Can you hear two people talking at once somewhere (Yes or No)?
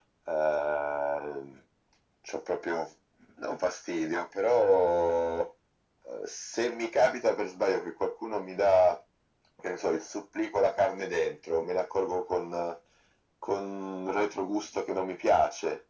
No